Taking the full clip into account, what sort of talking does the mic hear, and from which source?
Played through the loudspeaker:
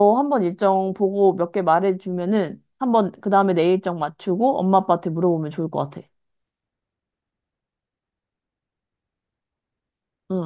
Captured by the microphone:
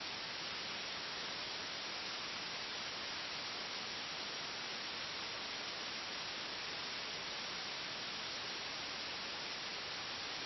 neither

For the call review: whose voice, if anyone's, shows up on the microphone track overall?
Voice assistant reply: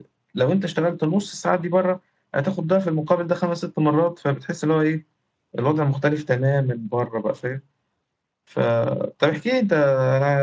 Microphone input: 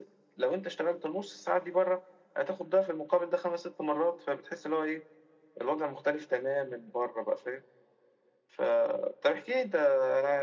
echo only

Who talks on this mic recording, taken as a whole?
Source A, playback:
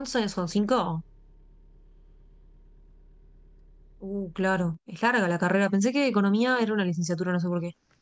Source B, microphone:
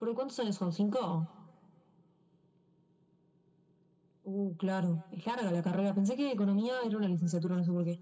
echo only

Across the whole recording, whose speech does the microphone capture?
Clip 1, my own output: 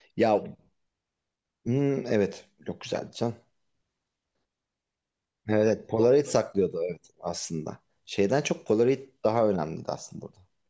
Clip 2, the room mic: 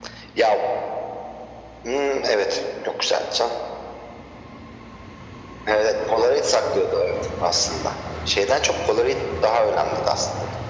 echo only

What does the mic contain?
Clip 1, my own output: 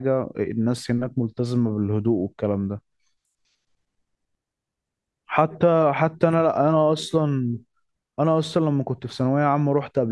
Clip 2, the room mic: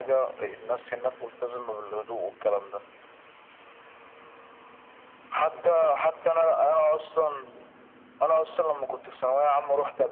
echo only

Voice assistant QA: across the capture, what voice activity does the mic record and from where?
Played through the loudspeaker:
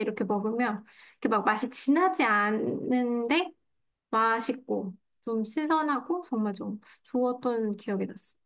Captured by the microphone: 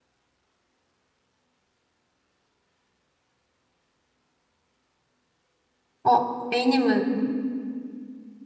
user only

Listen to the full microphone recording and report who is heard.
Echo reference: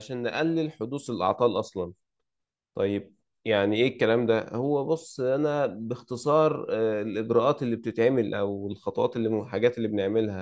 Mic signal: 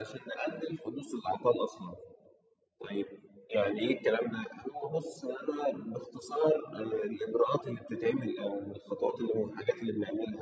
echo only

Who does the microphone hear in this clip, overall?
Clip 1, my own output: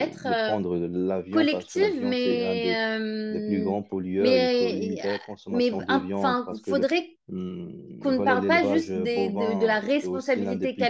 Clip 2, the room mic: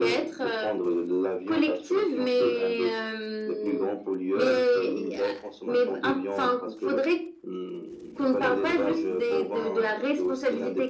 echo only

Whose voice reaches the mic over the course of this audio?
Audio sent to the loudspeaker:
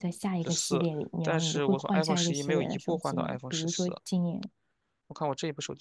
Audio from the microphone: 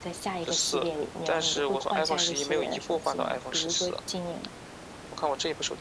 echo only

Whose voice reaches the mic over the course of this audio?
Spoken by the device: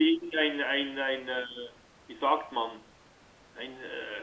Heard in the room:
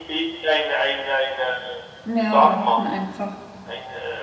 both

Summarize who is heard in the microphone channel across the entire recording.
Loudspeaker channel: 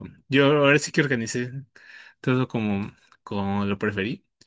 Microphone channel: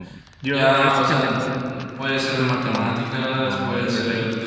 both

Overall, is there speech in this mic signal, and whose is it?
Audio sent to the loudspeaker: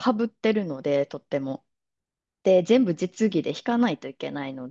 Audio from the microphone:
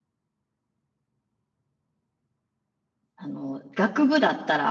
user only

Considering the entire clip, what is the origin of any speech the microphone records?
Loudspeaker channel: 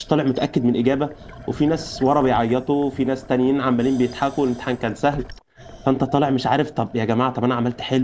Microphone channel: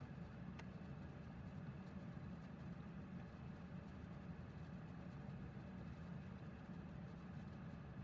neither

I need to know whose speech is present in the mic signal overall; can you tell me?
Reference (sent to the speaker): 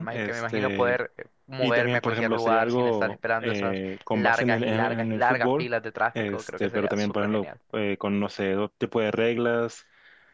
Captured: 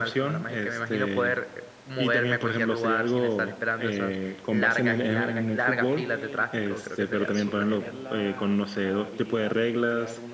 both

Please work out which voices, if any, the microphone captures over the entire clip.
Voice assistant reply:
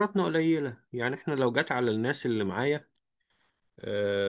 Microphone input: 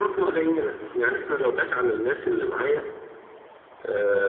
echo only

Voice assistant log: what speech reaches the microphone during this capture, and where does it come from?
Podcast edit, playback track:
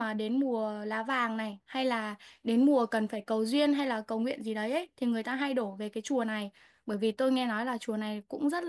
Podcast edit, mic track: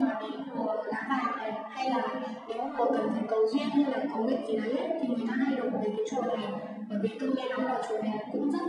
echo only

